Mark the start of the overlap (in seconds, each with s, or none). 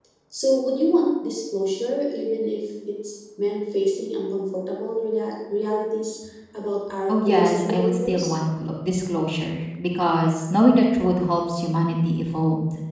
7.1 s